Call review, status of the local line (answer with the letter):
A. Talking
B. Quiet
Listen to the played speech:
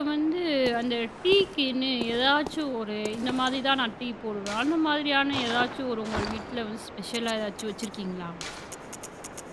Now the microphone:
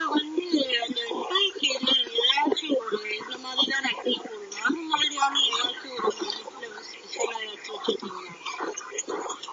B